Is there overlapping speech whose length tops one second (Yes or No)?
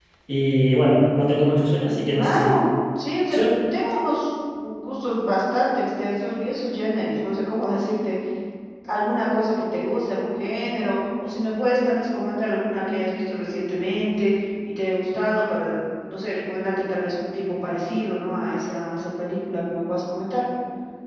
No